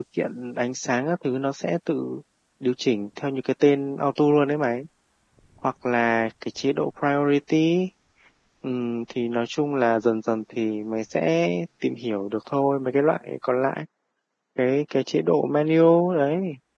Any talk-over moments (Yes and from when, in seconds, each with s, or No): No